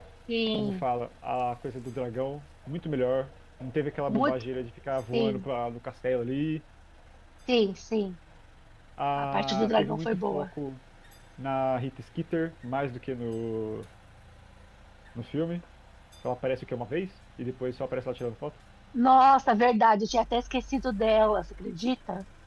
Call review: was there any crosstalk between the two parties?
Yes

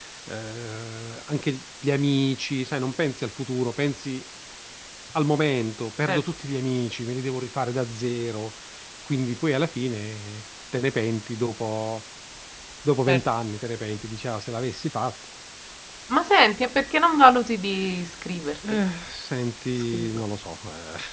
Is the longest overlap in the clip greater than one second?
No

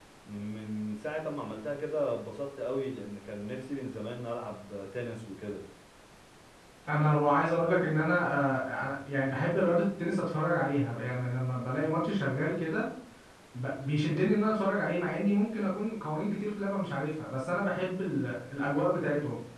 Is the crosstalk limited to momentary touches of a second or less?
Yes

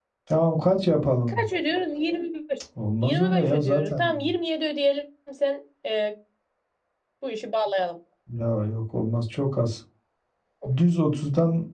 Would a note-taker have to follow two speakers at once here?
Yes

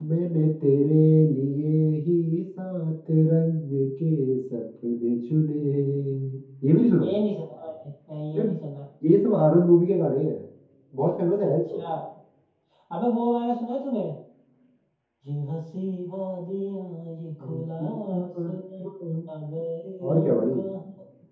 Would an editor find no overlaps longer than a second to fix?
No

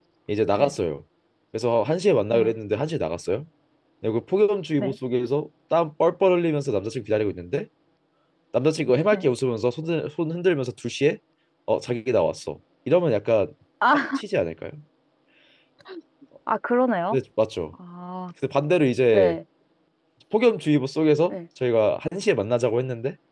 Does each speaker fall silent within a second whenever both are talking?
Yes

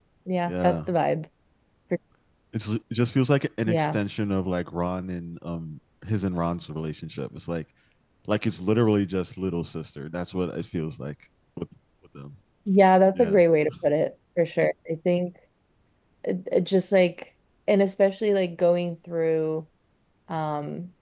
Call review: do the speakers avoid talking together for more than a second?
Yes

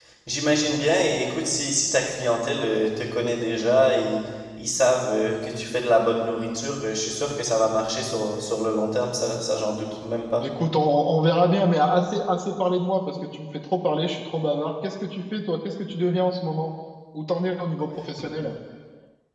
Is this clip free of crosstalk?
Yes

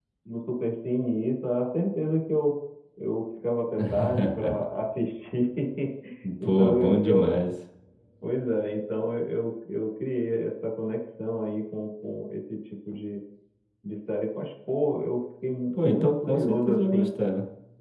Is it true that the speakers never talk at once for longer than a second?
No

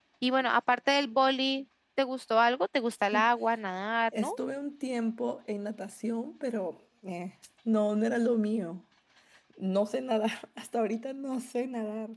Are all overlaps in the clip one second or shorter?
Yes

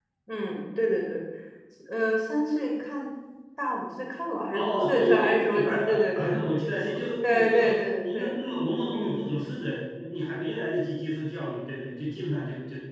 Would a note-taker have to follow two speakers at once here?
Yes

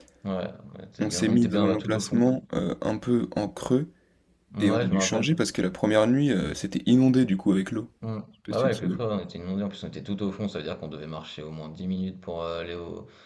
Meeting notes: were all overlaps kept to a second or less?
No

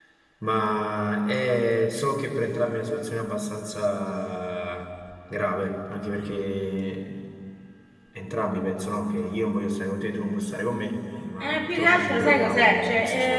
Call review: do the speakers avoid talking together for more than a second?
No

